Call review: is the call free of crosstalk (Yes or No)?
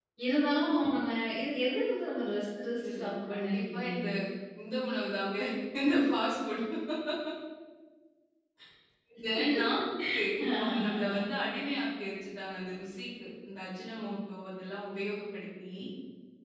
No